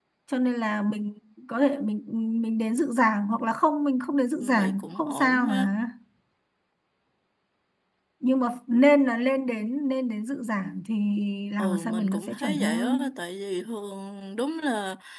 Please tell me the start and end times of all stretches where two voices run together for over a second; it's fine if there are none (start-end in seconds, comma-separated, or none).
4.4-5.7, 11.6-13.1